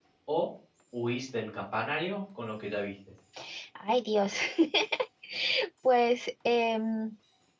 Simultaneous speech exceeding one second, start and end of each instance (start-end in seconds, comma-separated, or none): none